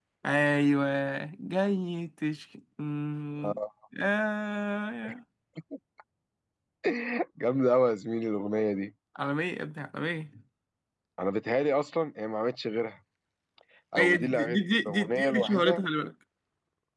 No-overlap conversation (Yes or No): No